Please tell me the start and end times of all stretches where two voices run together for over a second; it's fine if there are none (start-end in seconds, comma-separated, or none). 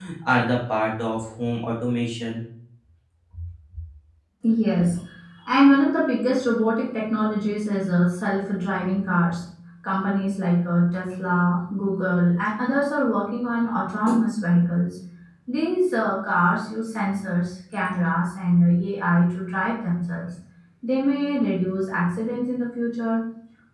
none